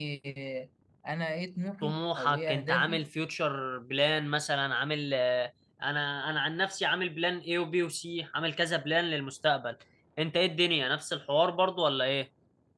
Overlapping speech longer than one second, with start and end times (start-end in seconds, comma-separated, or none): 1.8-3.0